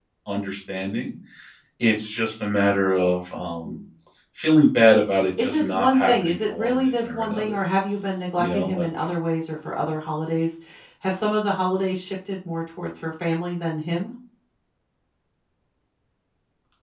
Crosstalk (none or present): present